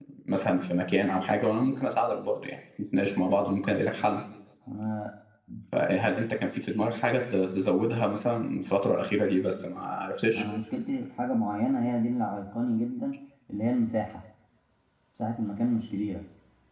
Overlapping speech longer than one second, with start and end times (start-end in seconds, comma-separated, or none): none